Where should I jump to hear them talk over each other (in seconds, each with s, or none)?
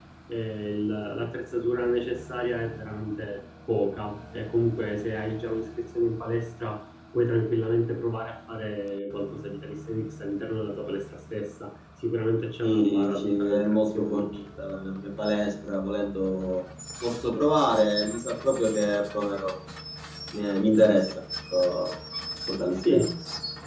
12.6 s